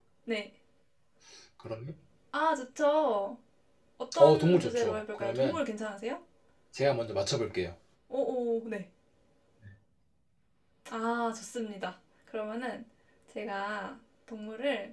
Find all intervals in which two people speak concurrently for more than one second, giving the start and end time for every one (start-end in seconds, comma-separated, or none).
4.2-5.6